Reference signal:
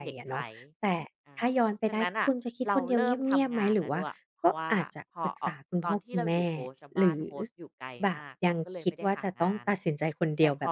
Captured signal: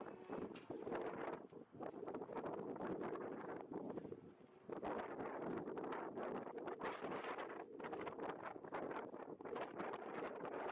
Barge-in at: none

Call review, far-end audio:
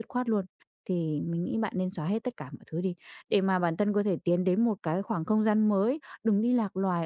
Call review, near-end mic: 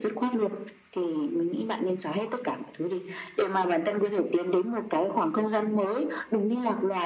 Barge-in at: none

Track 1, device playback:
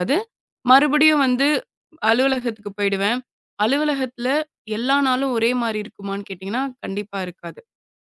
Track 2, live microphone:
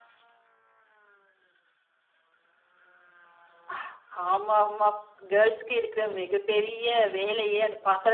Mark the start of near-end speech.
3.7 s

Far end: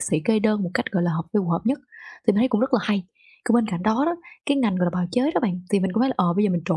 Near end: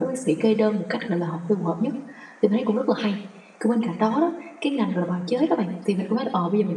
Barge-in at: none

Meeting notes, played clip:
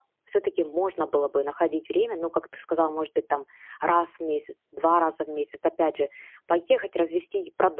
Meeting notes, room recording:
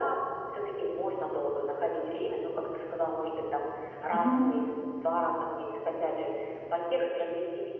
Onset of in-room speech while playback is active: 4.1 s

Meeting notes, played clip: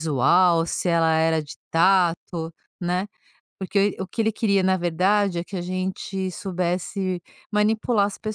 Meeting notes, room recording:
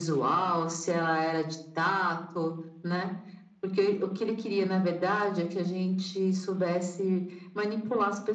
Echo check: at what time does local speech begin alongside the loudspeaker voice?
none

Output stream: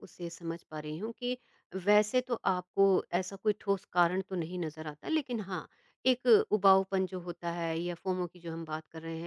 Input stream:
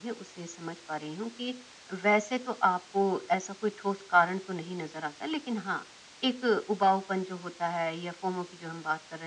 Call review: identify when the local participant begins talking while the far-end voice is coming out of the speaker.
none

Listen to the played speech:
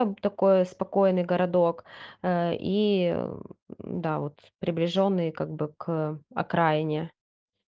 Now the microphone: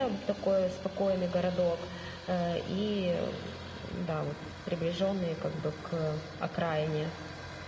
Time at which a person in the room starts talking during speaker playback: none

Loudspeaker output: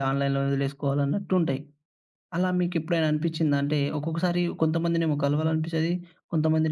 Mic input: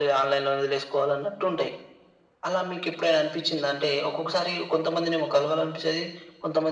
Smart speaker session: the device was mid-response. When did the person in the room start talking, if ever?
none

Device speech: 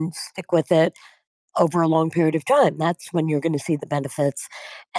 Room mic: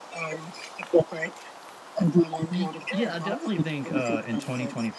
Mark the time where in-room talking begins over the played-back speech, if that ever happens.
2.5 s

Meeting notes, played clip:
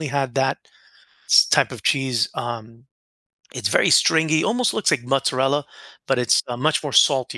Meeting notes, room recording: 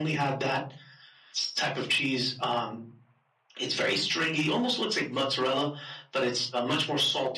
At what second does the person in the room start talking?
none

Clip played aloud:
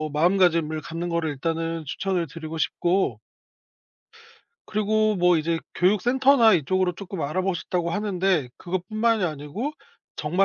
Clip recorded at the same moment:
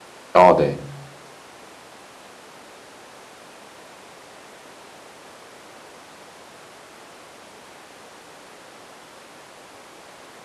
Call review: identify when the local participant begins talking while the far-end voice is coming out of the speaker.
0.3 s

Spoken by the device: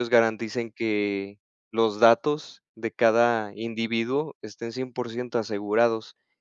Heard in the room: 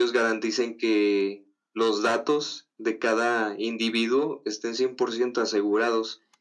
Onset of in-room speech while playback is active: none

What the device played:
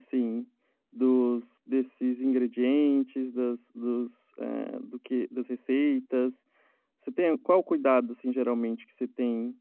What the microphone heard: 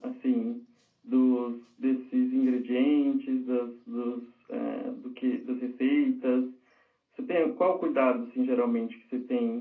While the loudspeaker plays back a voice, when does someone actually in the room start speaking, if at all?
none

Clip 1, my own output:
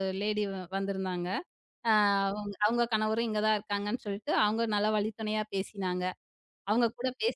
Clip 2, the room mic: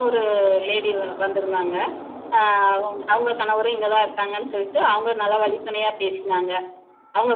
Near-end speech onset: none

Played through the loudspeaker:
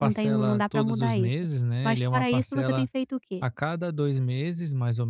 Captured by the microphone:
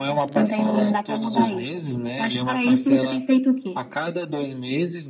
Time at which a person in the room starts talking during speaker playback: none

